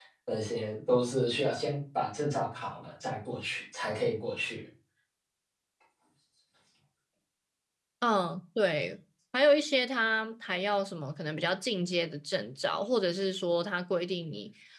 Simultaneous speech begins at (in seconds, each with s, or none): none